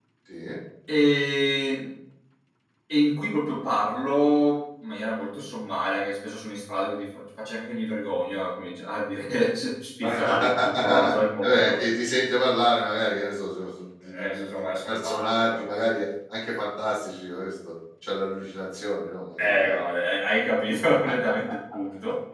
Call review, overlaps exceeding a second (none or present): present